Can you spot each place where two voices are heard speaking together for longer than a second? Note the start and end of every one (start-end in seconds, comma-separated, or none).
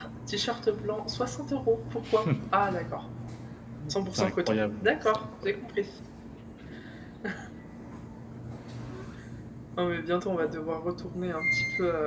4.2-5.6